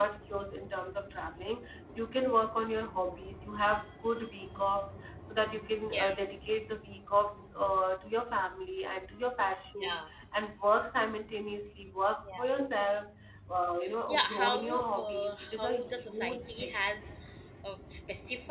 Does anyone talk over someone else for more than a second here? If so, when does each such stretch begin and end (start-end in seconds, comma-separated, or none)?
14.1-16.8